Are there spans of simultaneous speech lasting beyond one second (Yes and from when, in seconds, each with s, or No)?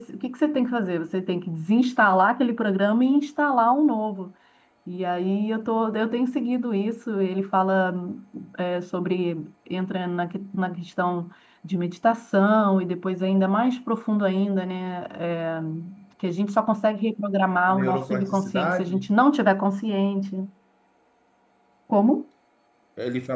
Yes, from 17.7 s